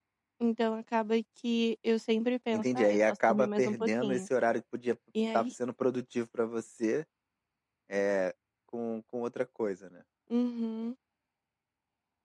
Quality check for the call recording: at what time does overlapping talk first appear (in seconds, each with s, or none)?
2.5 s